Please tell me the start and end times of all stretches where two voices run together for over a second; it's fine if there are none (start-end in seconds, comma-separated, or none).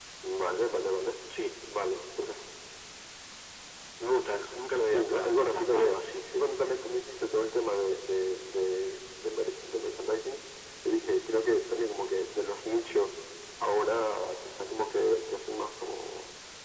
4.8-6.0